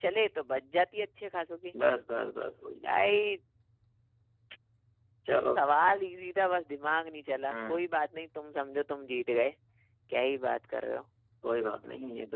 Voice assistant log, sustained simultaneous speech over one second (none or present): none